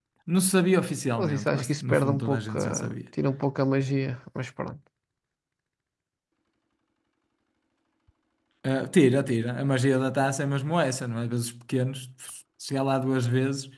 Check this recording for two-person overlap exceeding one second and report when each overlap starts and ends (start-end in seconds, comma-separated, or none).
1.2-2.9